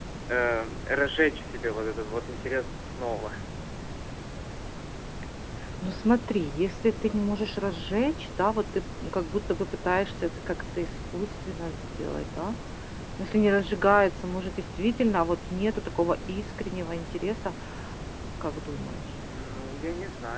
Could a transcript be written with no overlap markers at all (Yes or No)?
Yes